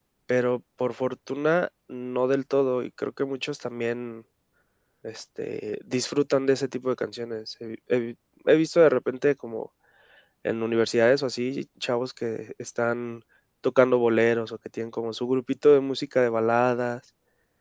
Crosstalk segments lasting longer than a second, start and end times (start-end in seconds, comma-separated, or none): none